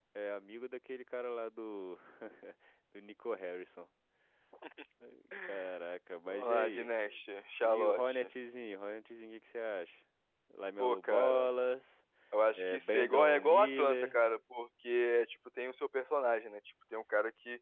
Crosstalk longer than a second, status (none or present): present